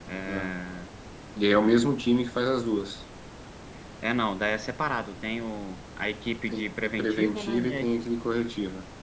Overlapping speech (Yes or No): Yes